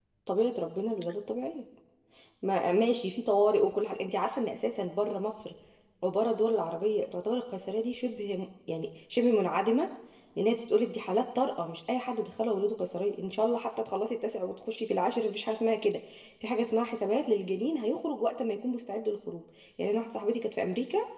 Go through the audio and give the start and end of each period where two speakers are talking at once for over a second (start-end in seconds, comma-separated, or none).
none